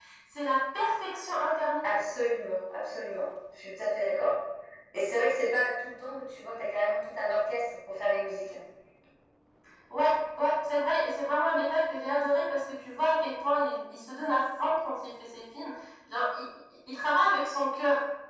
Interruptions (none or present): none